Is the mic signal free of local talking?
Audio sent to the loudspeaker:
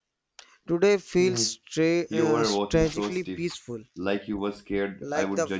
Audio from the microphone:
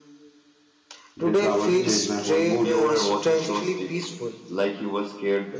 No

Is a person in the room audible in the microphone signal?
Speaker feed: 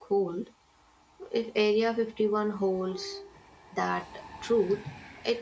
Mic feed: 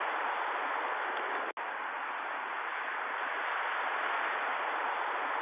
No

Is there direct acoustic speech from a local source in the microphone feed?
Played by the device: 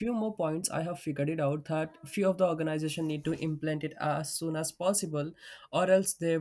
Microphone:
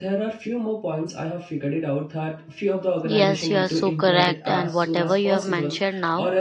Yes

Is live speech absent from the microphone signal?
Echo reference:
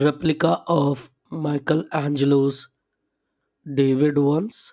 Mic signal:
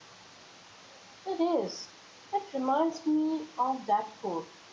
No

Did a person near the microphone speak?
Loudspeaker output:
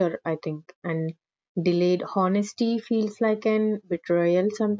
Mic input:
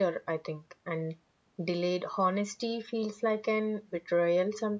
No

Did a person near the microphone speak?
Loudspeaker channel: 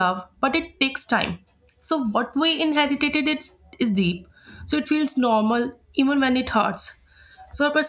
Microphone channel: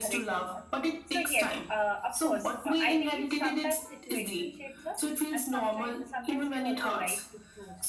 Yes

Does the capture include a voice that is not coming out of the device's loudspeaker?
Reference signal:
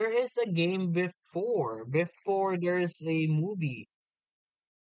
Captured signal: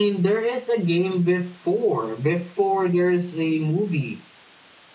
No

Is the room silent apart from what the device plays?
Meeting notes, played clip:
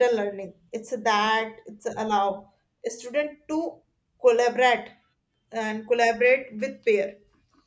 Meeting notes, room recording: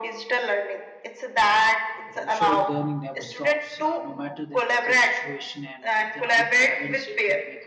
No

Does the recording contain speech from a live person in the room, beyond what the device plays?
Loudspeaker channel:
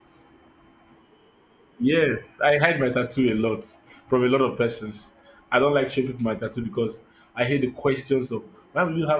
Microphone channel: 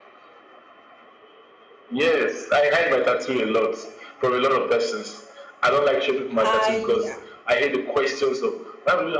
Yes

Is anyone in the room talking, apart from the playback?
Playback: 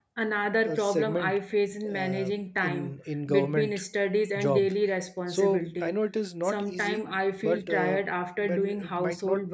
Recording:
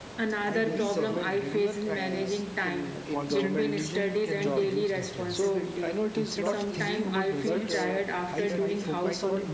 Yes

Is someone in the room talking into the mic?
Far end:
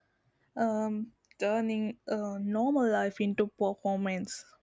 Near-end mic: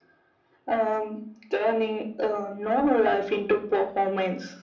No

